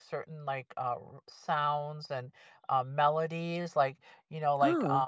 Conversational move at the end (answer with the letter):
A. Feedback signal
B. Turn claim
A